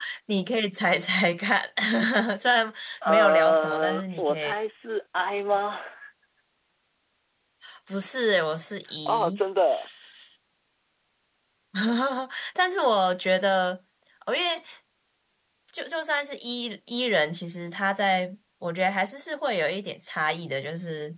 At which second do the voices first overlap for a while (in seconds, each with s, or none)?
3.1 s